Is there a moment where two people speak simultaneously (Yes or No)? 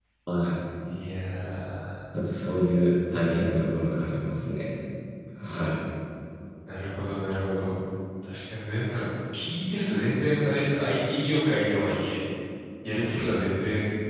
No